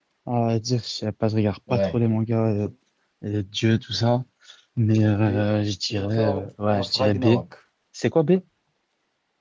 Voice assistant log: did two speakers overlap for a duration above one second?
Yes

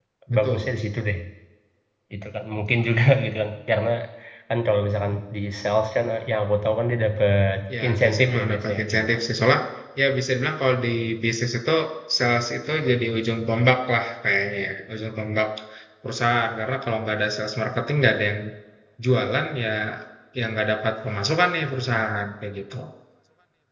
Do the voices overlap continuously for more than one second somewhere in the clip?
Yes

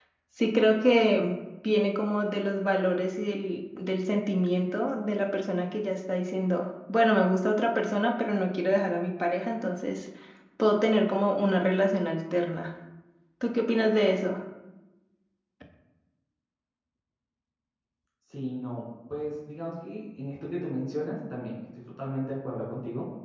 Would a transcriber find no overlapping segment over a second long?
Yes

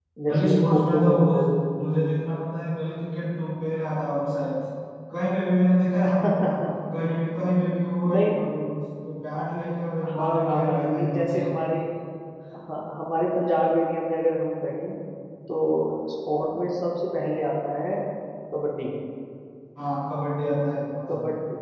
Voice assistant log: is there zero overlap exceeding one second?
No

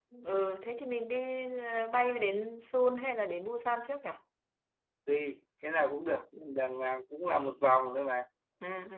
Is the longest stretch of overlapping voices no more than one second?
Yes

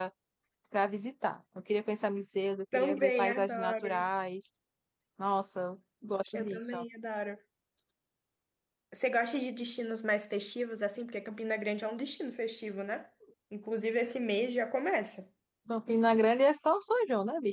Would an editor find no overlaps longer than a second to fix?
No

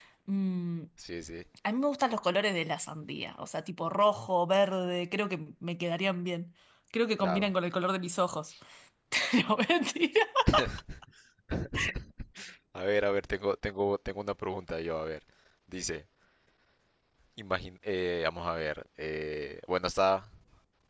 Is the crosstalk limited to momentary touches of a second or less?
Yes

